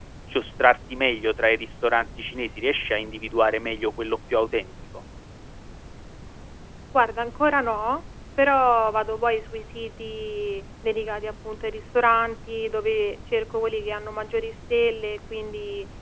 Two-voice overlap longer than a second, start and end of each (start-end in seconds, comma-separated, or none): none